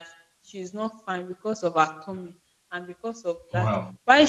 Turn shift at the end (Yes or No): No